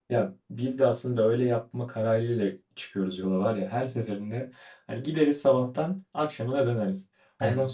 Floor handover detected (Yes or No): No